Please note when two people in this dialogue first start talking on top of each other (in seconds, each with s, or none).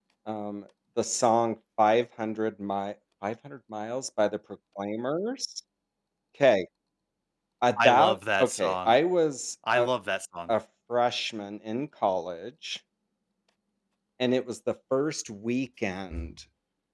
7.8 s